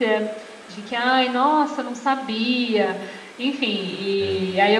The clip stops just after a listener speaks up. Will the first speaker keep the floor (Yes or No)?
Yes